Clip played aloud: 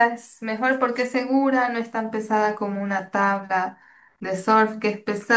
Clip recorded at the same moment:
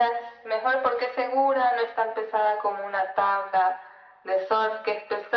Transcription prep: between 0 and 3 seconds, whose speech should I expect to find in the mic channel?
echo only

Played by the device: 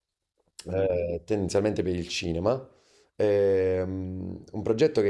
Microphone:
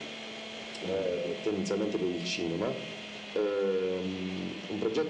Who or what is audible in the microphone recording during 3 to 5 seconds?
echo only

